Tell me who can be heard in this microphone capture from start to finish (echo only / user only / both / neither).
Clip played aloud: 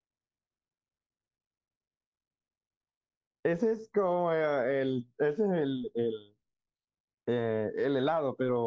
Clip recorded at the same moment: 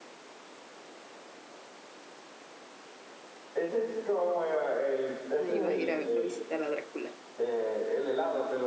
both